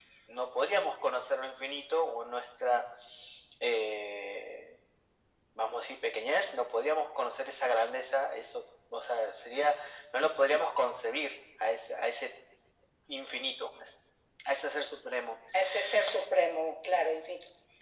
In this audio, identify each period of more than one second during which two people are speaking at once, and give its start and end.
none

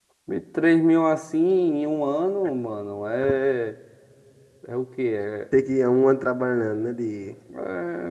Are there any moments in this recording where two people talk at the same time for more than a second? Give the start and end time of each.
none

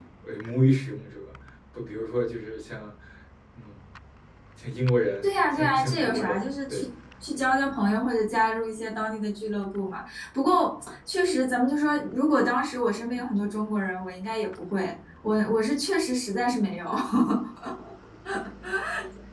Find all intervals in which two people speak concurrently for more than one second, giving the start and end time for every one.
5.2-6.9

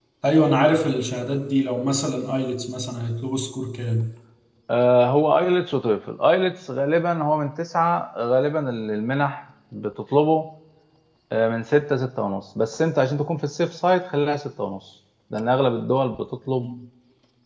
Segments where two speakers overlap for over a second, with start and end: none

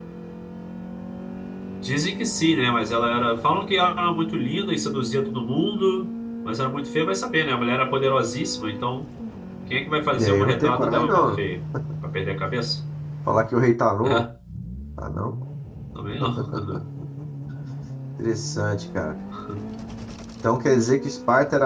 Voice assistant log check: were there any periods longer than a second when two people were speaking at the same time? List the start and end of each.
10.2-11.4

